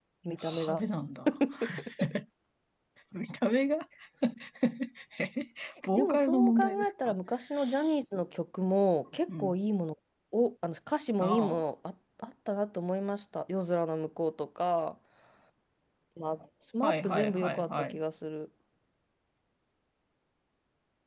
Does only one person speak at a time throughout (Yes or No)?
No